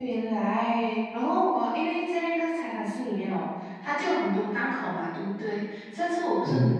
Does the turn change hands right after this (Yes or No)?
No